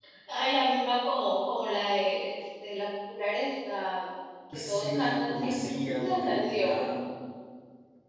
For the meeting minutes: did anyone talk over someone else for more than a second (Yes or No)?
Yes